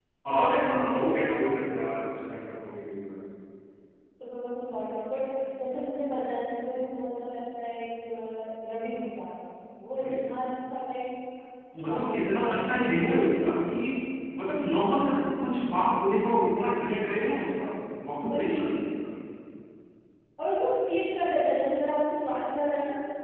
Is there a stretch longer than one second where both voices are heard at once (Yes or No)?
Yes